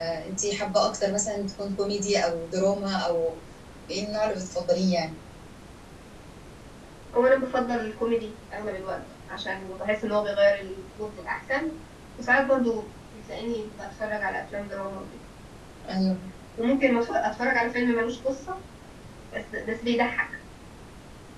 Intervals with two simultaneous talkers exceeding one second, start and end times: none

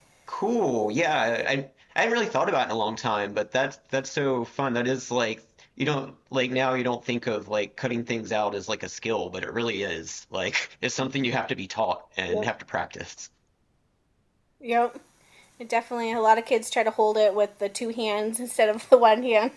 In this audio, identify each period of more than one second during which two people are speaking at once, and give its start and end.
none

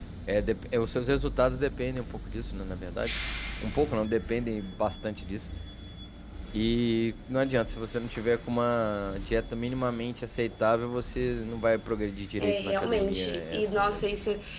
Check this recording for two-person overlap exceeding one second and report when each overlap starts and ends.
12.4-14.0

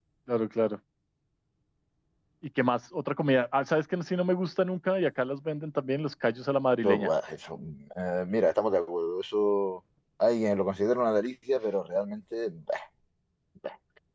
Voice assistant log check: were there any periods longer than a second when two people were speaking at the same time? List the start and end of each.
none

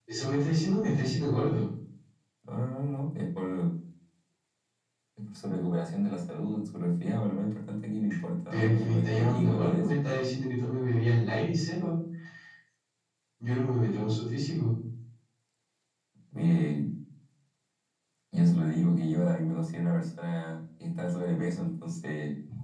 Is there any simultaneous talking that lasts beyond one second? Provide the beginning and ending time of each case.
8.5-9.9

